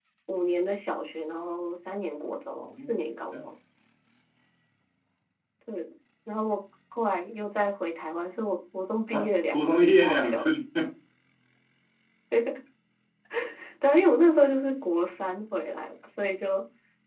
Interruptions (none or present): present